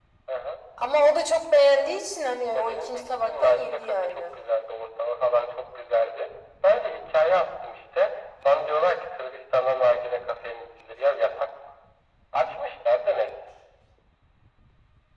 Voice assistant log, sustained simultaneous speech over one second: present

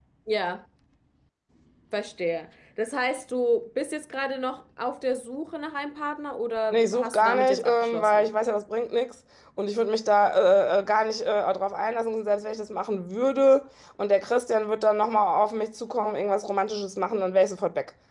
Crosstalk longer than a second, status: present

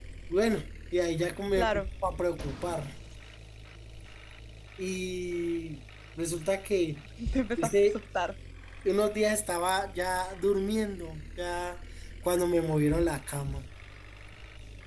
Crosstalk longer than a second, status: none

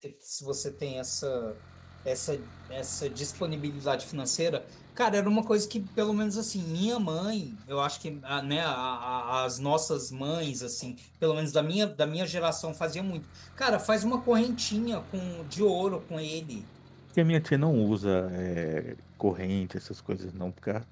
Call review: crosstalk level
none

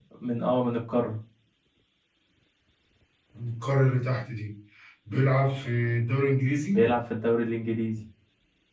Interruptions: none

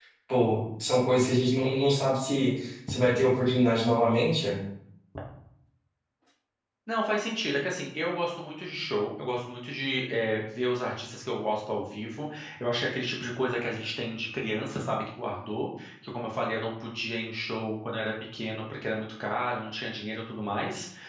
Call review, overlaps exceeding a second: none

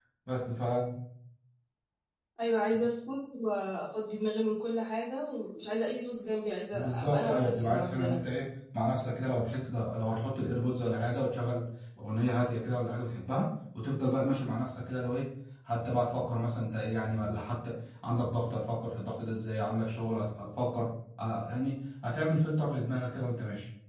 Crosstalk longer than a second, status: present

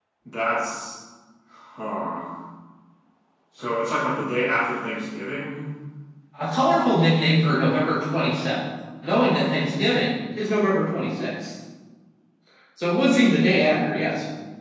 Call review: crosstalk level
none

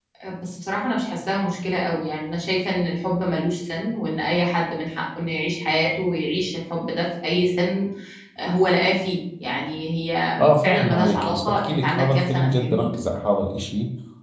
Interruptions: present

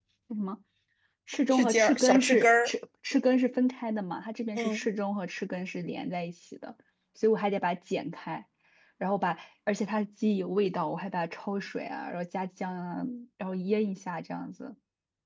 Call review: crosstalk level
present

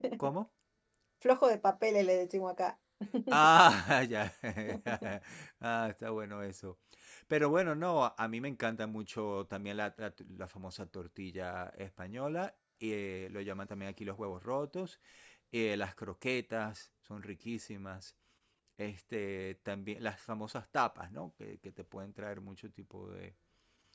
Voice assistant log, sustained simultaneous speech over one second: none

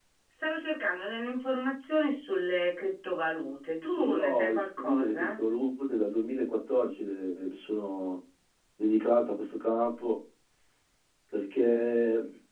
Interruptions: present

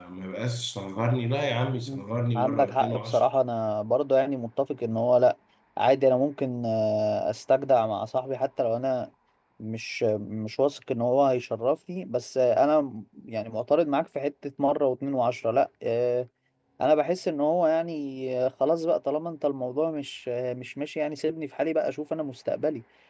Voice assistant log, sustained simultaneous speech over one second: present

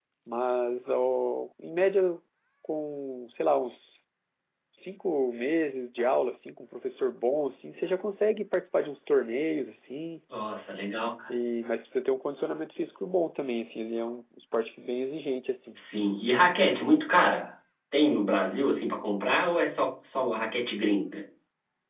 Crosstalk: none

